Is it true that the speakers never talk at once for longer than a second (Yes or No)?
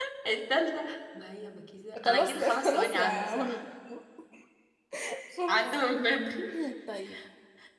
No